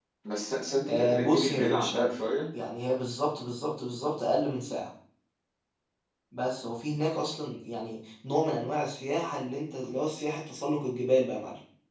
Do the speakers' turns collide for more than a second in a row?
Yes, from 0.8 s

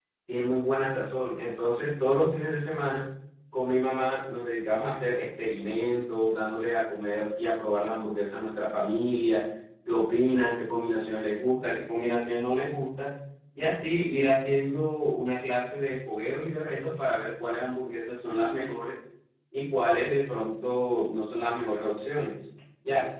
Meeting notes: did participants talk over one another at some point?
No

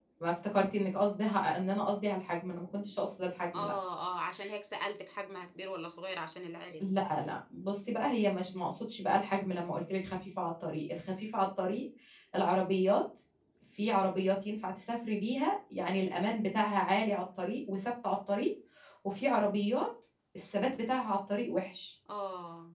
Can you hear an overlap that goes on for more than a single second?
No

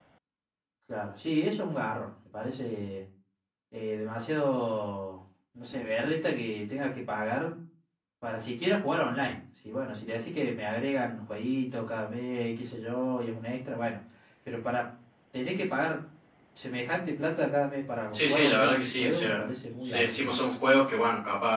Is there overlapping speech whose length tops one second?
Yes, from 18.1 s

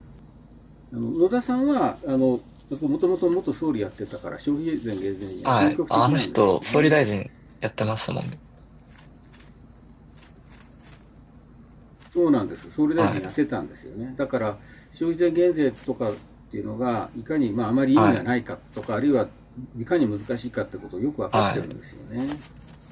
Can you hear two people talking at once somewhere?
Yes, from 5.5 s

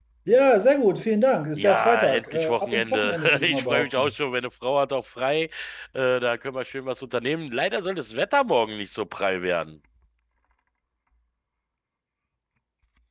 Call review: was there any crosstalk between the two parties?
Yes, from 1.6 s

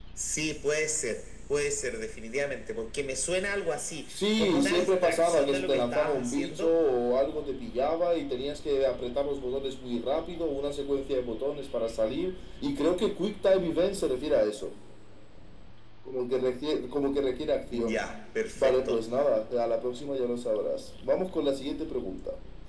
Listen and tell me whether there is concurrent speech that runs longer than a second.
Yes, from 4.1 s

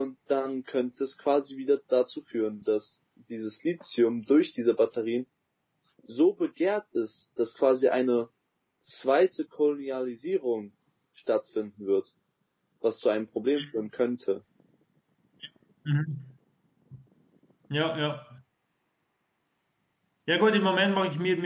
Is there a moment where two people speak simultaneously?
No

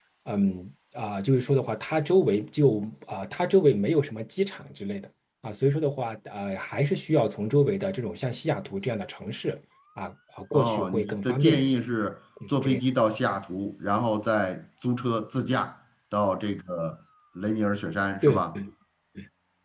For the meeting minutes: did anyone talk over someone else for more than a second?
Yes, from 10.5 s

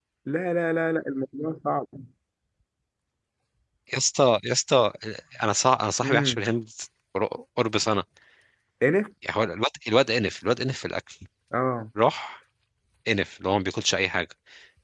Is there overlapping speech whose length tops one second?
No

